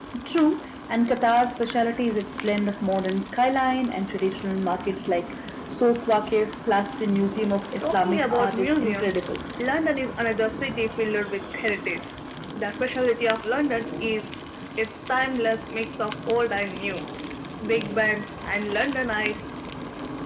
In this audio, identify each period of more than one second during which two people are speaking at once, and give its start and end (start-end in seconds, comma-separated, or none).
7.8-9.2